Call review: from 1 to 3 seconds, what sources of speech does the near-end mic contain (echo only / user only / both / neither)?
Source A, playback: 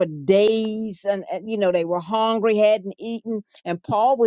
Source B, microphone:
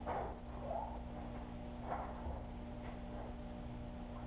neither